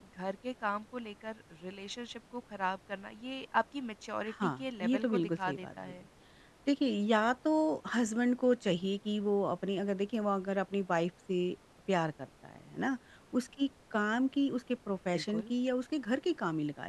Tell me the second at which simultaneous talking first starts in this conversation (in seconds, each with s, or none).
4.4 s